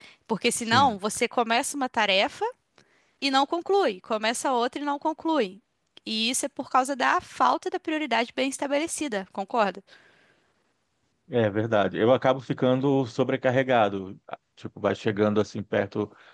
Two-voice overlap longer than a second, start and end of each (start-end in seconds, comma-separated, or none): none